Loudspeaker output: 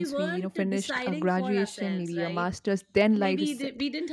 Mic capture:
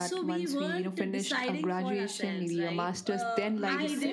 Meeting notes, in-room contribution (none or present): present